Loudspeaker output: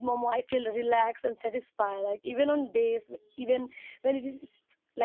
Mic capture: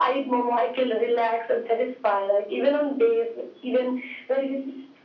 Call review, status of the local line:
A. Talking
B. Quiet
B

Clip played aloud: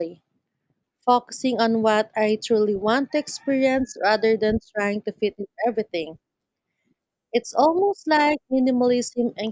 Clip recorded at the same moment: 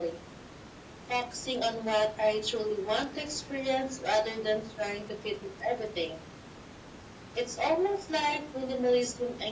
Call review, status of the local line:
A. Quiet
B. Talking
A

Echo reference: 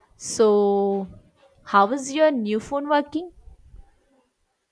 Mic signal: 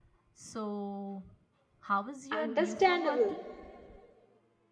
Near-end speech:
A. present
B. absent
A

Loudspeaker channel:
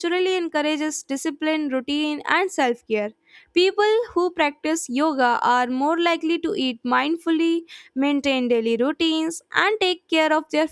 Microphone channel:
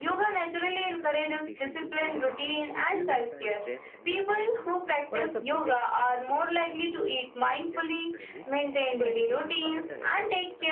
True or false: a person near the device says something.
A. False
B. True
B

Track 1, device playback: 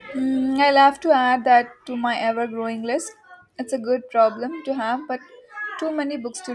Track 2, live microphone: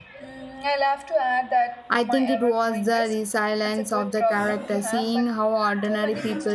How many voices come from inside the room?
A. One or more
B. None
A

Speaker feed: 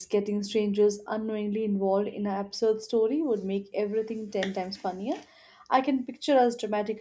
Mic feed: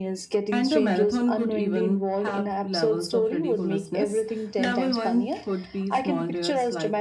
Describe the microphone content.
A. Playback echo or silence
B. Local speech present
B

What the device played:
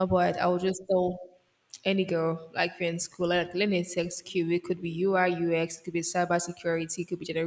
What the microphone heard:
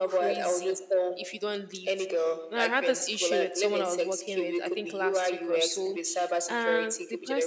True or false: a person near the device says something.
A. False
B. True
B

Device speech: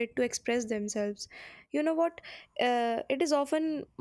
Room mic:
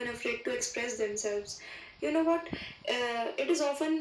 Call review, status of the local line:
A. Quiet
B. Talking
A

